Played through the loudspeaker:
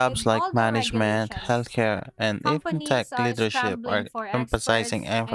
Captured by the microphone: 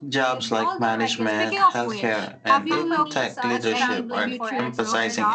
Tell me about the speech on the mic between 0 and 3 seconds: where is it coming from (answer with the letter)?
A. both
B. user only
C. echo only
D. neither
A